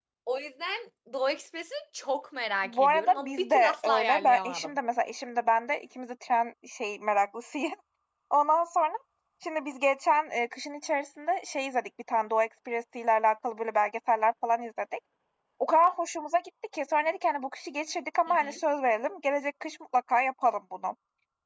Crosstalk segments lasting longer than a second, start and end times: 2.6-4.7

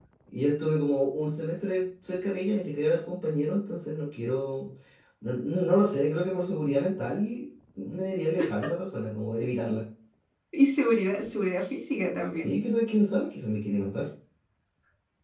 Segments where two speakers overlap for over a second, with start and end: none

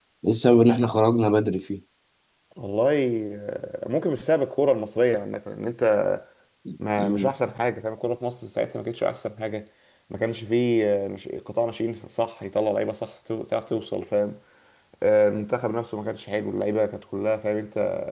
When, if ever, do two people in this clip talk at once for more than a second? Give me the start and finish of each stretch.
none

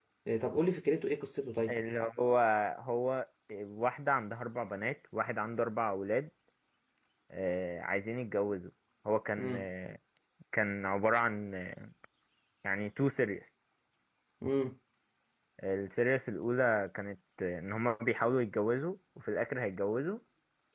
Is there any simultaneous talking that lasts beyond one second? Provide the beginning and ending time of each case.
none

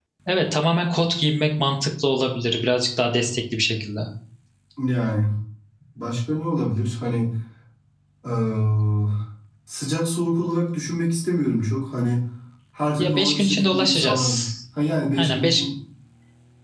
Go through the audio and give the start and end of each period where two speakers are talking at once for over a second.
13.0-14.5

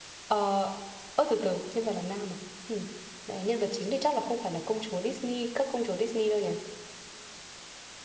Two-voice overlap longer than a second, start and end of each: none

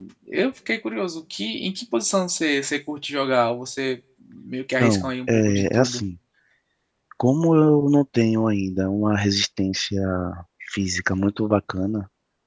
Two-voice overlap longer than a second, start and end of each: 4.8-6.0

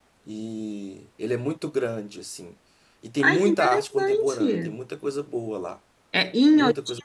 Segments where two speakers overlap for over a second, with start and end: 3.2-4.8

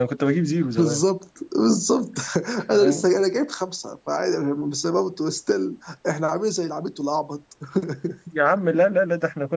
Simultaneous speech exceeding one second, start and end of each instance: none

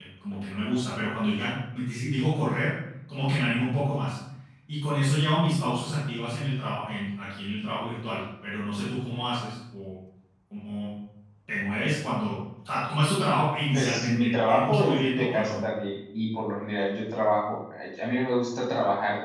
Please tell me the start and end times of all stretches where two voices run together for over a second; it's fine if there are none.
13.7-15.6

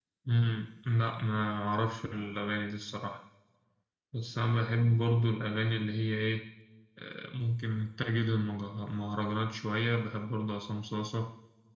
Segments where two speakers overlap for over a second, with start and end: none

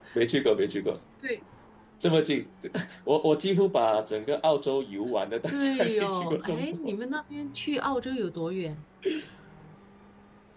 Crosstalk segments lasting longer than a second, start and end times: 5.5-6.9

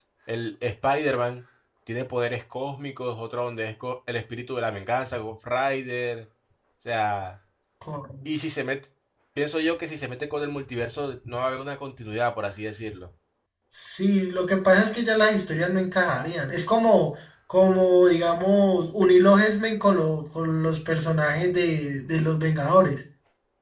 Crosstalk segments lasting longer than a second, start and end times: none

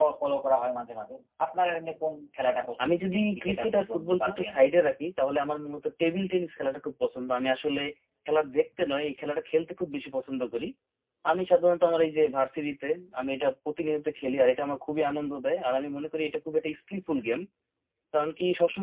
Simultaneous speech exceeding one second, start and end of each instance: 2.8-4.6

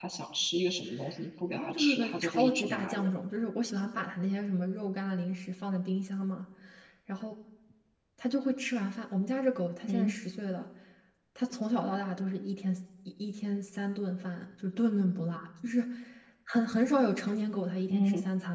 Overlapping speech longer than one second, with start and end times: 1.5-3.1

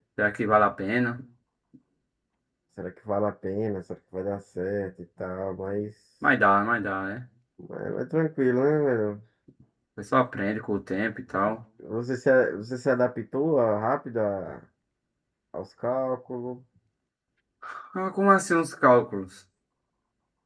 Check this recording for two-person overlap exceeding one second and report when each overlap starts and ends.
none

